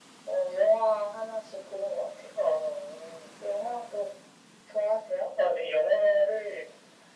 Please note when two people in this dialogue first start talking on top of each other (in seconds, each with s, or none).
none